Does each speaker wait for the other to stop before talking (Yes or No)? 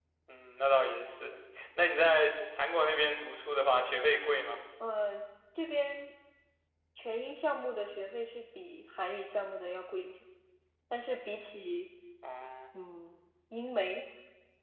Yes